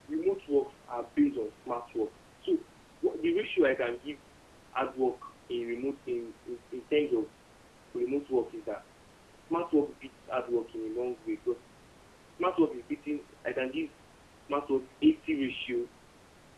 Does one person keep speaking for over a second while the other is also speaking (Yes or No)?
No